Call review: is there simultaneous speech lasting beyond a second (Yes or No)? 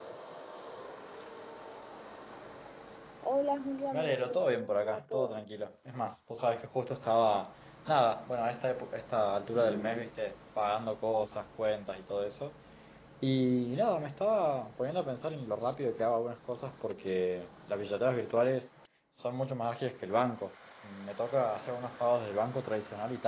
Yes